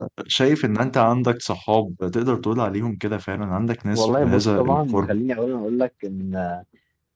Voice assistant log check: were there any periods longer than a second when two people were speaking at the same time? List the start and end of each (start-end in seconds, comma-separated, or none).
3.9-5.2